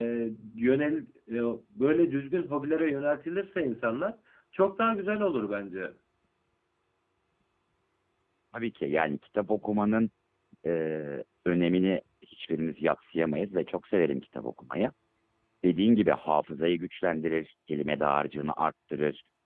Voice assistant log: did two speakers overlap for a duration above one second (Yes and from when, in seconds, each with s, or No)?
No